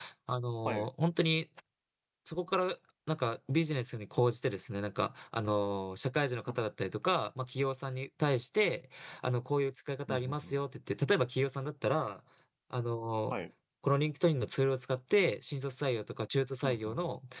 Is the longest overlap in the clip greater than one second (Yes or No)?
No